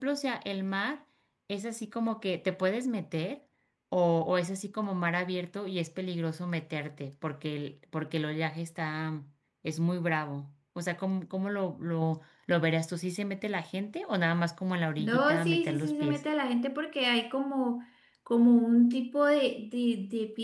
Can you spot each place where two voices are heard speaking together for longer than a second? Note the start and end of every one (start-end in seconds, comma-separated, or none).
15.0-16.2